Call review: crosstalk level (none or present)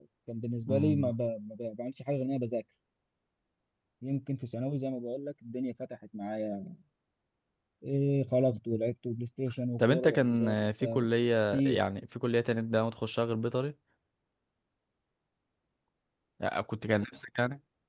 present